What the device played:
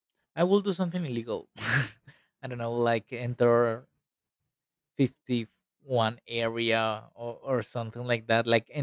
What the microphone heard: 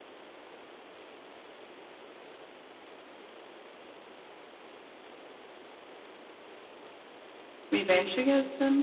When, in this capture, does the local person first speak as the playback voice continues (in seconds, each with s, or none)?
7.7 s